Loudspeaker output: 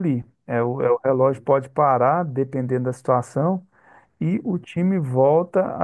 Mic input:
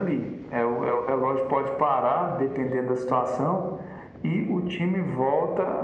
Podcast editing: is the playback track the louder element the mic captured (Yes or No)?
Yes